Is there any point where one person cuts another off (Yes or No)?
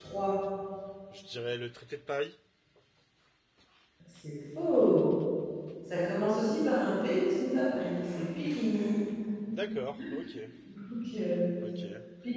No